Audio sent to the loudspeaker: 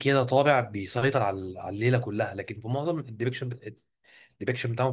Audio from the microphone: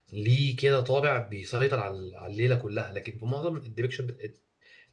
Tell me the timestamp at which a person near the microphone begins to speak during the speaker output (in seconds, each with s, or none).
none